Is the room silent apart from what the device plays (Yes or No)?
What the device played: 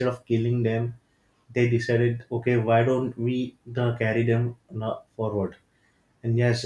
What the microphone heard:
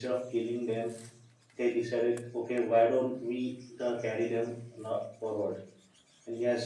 Yes